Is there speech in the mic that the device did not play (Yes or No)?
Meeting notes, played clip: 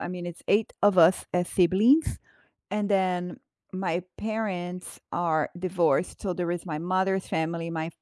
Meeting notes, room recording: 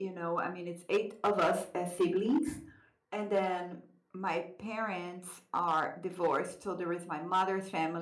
No